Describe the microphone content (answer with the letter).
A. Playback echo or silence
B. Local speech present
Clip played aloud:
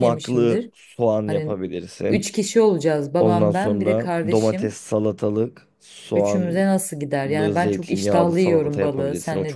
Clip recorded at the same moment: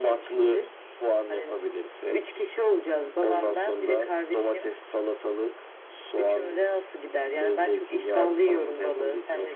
A